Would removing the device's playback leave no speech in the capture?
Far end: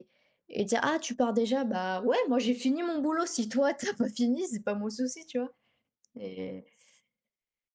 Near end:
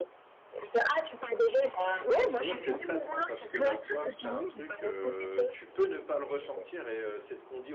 No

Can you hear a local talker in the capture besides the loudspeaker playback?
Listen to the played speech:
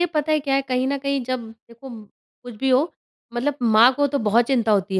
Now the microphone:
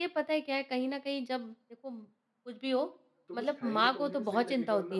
Yes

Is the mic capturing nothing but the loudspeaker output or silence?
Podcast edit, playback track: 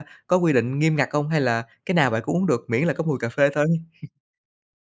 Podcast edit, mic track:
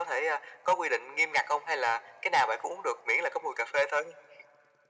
Yes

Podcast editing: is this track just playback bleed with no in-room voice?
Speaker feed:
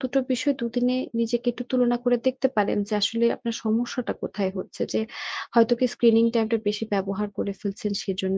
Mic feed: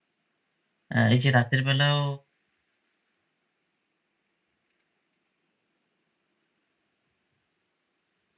No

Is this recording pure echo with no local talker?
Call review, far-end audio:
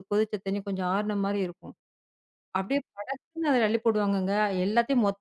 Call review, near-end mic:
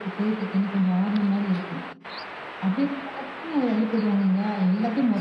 Yes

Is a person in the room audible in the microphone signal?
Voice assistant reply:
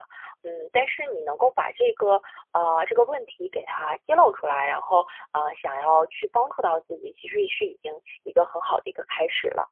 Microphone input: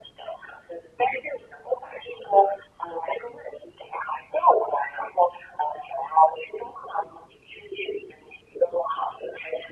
No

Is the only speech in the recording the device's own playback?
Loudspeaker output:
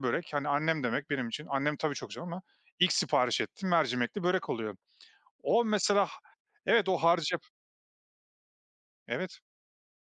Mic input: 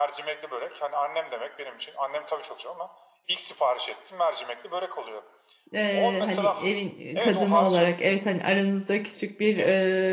No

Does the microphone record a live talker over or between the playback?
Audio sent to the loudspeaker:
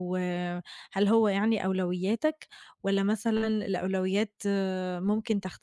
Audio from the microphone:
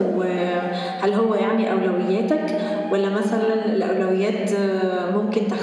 No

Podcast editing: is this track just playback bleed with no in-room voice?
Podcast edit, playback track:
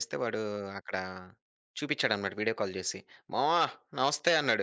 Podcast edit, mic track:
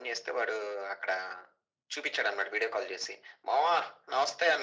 Yes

